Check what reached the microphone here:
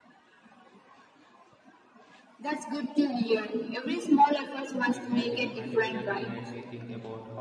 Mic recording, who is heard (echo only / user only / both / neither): both